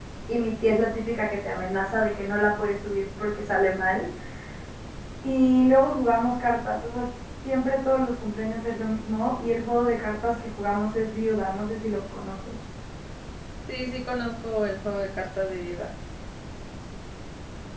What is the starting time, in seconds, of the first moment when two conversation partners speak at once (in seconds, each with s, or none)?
none